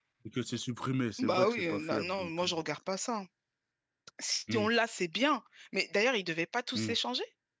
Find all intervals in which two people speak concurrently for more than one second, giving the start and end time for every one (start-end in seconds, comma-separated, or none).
1.2-2.5